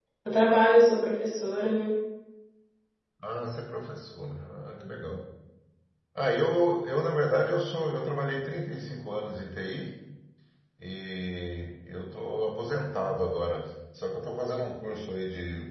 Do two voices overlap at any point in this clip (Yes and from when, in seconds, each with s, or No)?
No